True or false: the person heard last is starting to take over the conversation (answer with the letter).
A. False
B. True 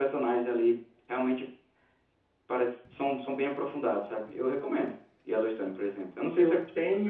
B